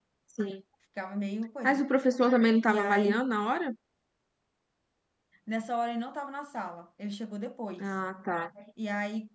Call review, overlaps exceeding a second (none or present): none